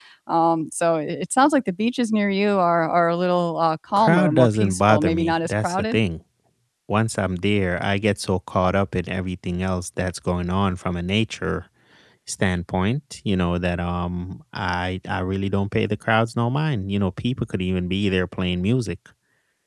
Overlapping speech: Yes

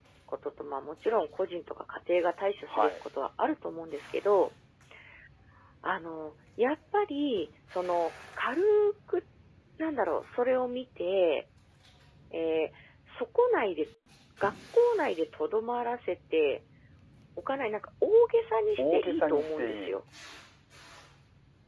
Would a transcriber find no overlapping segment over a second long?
No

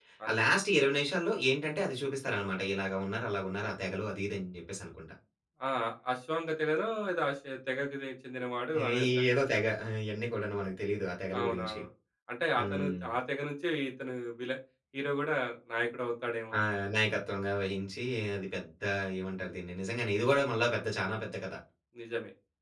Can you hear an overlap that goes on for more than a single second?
No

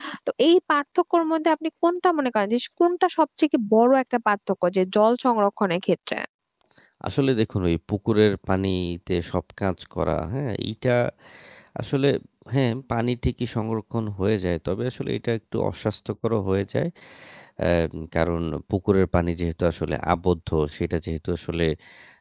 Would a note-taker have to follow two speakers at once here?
No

